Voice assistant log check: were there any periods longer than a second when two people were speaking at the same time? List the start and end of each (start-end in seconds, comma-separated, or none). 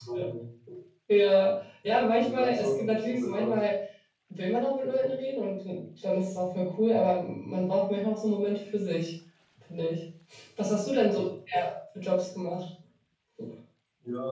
2.2-3.5